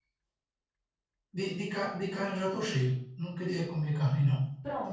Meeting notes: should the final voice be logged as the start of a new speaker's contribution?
Yes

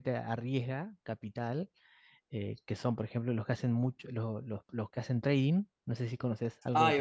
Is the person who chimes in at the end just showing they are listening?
No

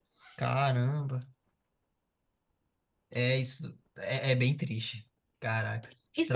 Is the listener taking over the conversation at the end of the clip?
Yes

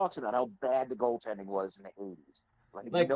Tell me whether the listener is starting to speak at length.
Yes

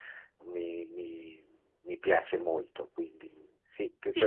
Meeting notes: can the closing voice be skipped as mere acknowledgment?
No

